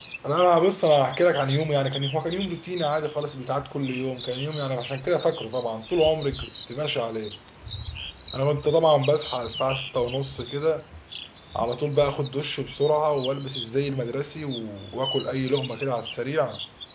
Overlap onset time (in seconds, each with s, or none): none